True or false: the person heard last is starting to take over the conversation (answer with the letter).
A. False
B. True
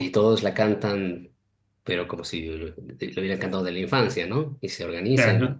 A